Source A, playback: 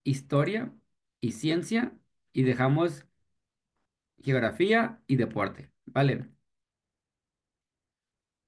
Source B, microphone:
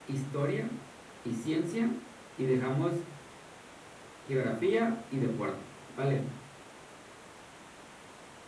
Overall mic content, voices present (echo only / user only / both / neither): echo only